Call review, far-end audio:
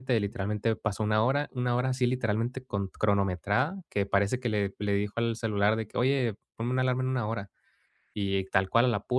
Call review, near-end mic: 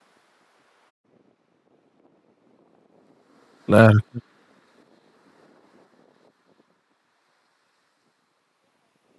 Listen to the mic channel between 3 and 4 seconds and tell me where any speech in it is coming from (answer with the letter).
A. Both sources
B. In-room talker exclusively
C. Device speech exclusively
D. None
B